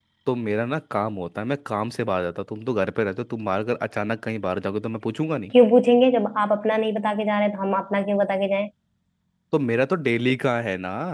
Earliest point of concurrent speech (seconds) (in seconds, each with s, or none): none